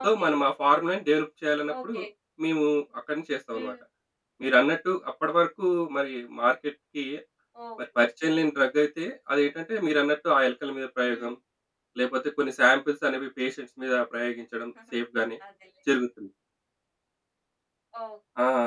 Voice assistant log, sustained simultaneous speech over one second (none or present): none